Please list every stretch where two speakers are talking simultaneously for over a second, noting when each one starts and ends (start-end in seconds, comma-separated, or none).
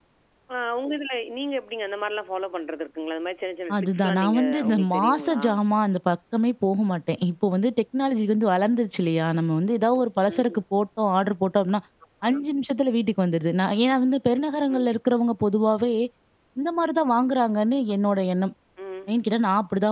3.8-5.4